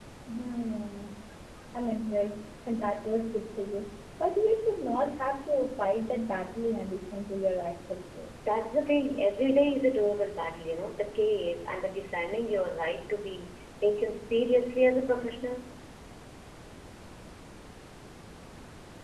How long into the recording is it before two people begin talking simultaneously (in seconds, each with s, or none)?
none